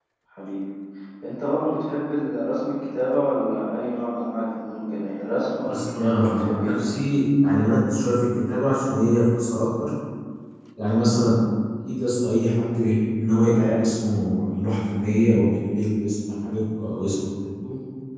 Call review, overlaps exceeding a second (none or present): present